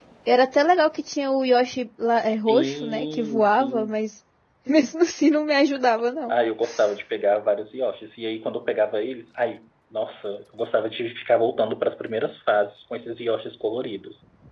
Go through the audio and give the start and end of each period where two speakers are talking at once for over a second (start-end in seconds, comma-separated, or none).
2.3-4.0